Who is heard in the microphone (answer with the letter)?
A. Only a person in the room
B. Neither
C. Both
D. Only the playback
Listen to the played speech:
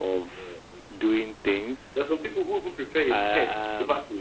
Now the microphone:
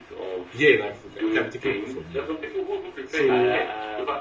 C